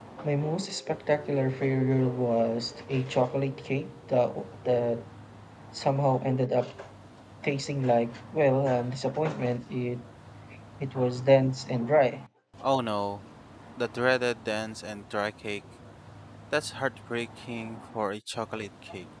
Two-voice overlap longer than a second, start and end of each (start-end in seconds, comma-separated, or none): none